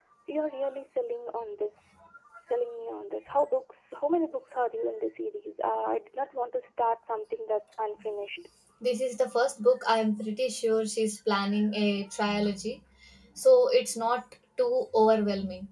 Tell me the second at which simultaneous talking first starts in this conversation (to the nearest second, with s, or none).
none